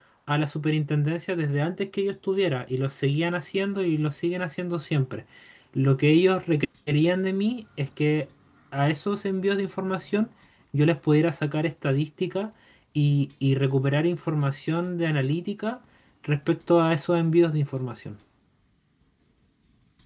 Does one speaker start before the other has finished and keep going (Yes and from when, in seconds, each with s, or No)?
No